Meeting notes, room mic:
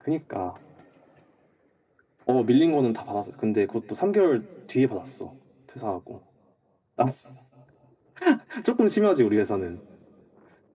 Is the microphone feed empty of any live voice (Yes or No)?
Yes